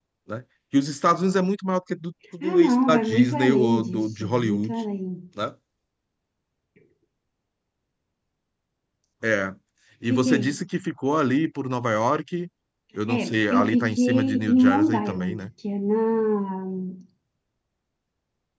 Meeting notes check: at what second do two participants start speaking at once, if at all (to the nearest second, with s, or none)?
2 s